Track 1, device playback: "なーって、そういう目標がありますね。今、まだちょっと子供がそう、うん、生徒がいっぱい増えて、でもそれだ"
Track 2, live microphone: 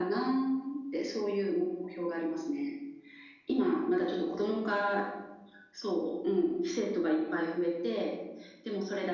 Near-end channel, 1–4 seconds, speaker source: echo only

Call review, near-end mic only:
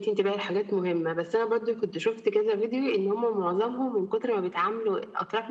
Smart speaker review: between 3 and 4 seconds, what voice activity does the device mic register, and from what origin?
echo only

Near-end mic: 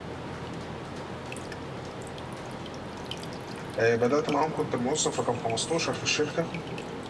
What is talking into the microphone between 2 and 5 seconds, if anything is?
user only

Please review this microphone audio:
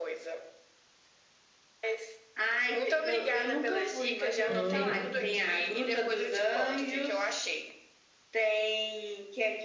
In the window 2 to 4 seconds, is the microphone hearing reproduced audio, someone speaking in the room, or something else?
echo only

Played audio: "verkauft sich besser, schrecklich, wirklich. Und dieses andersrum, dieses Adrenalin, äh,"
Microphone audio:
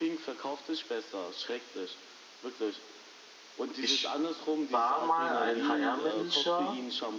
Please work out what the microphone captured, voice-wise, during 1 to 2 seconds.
echo only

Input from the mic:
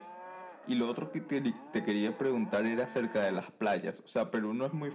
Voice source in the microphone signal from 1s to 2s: echo only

